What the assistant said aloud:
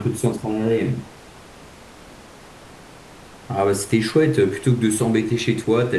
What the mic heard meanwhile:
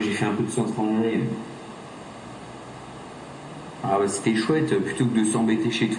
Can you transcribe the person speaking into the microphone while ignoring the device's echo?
none

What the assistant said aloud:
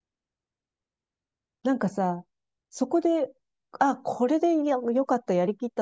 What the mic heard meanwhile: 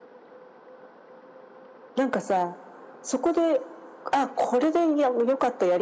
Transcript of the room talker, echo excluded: none

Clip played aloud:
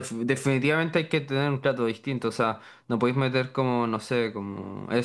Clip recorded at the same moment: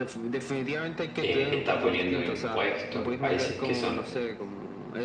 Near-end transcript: eh, que está poniendo impuestos en países que son,

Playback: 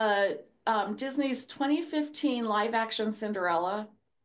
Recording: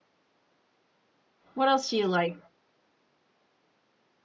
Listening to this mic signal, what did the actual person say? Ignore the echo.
What else do you like?

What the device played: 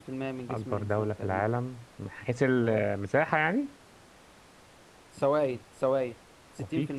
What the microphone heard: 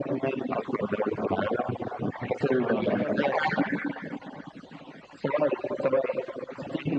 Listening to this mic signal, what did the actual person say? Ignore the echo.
عربية رجعتها

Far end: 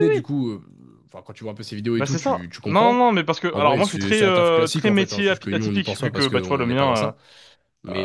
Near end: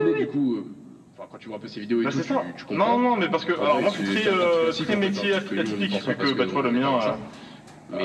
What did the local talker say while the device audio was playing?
none

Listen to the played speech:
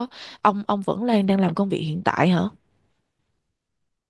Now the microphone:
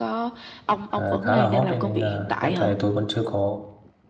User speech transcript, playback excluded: ờ, khá là hot đấy, nên là hiện tại tôi vẫn chưa có

